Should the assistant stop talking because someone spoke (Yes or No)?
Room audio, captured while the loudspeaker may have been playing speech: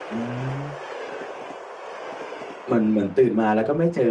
Yes